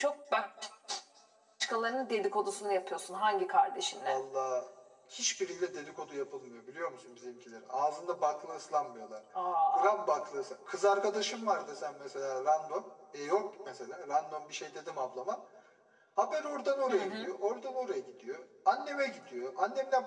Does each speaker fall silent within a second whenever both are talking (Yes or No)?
Yes